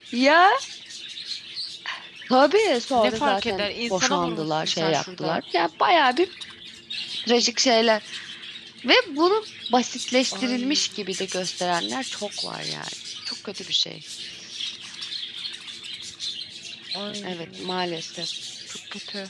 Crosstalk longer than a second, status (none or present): present